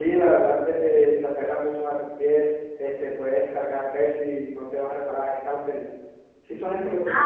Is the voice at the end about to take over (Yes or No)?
Yes